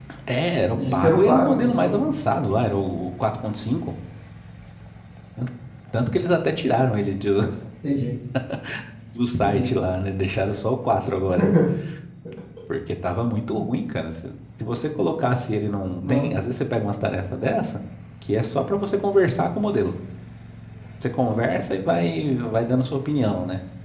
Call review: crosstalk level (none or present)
present